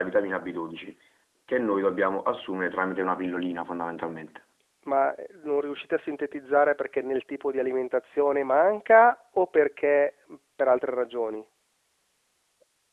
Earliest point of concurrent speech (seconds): none

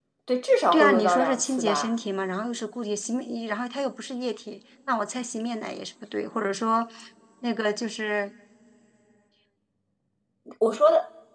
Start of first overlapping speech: 0.7 s

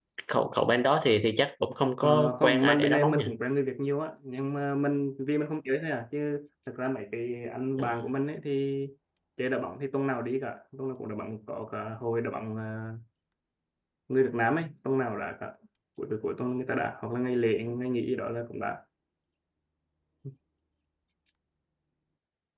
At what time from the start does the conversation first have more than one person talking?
2.0 s

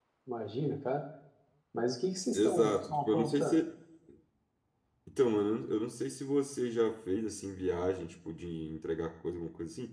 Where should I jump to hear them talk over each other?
2.3 s

